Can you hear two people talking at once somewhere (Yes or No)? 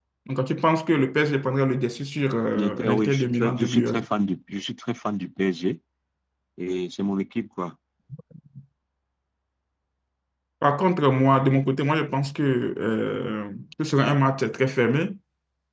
Yes